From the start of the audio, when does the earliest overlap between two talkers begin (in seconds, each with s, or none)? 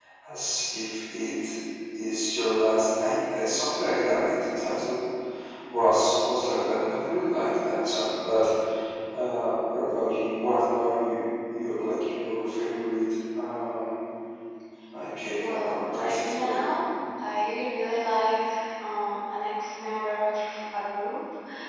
15.5 s